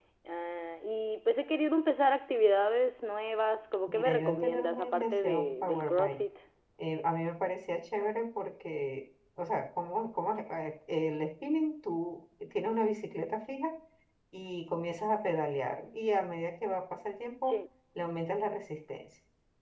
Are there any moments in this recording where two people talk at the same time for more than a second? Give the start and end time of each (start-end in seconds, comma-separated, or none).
3.9-6.2